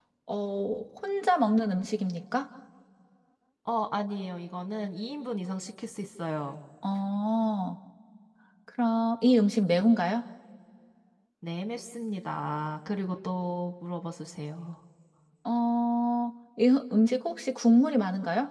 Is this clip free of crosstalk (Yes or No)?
Yes